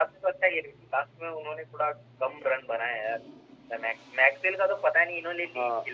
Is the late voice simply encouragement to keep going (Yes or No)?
No